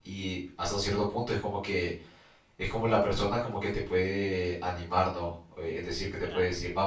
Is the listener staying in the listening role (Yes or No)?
Yes